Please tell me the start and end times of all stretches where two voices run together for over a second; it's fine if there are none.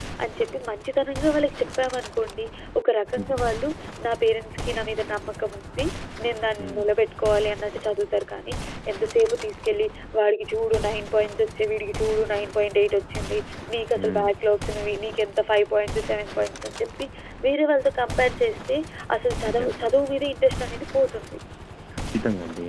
none

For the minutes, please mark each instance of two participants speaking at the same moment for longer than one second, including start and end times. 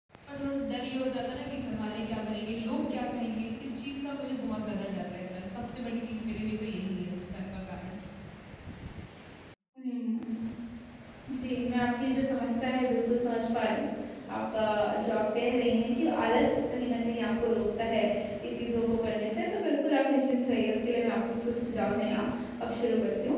none

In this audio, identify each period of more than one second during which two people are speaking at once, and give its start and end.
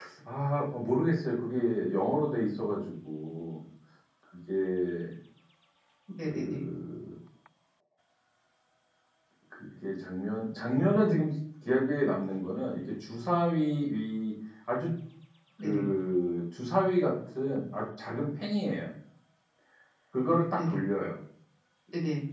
none

